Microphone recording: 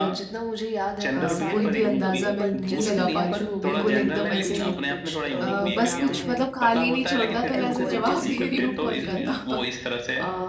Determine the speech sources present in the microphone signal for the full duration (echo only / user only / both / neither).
both